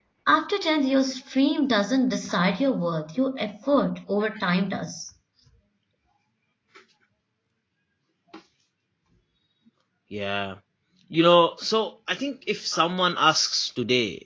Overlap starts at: none

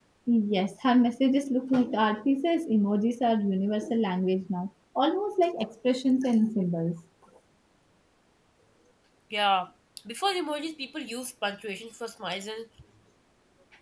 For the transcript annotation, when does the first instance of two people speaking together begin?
none

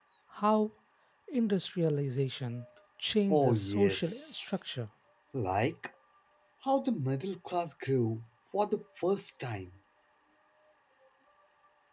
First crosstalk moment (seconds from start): 3 s

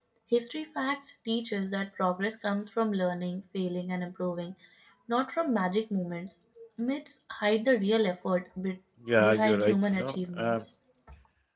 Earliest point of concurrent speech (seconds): 9 s

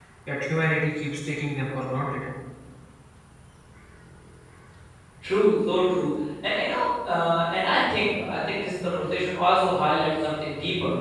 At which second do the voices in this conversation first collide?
none

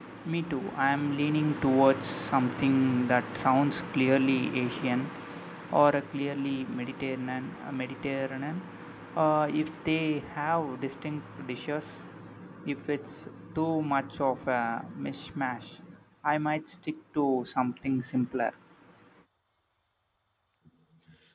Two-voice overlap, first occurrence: none

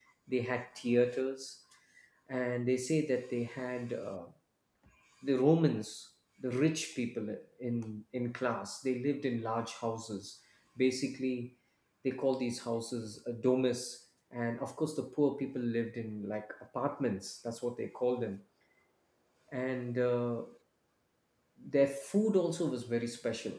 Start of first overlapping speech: none

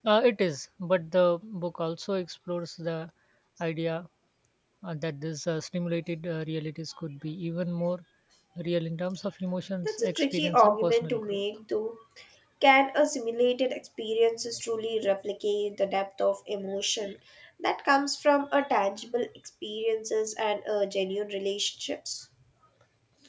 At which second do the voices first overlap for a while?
10 s

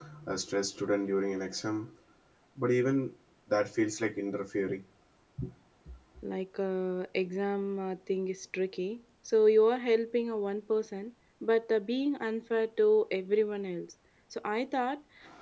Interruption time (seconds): none

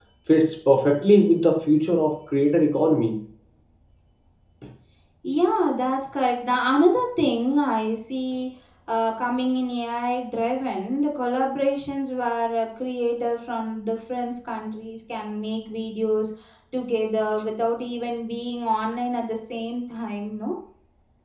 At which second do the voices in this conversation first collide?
none

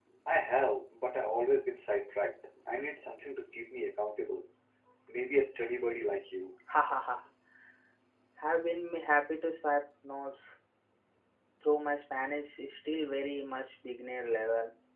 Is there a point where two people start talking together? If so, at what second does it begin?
none

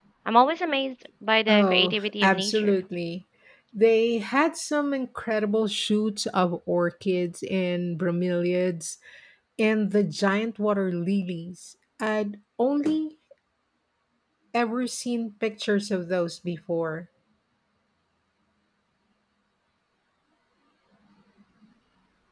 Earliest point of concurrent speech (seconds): 1 s

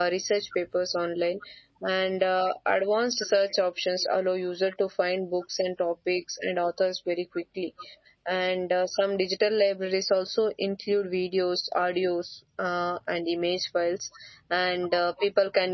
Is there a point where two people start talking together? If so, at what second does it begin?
none

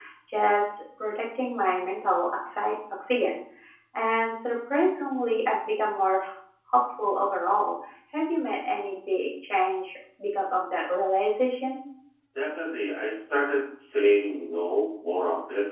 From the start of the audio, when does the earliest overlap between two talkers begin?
none

